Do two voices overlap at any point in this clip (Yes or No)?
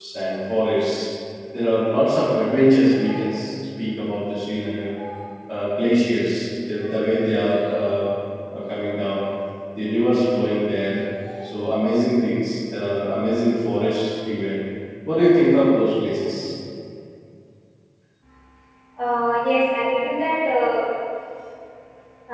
No